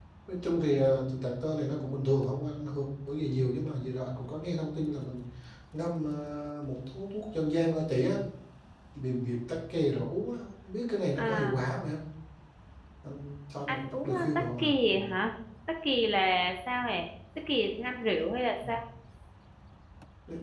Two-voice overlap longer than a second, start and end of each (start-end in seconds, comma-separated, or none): 13.7-15.0